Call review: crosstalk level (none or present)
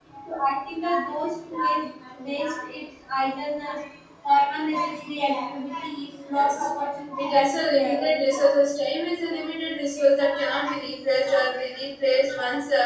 present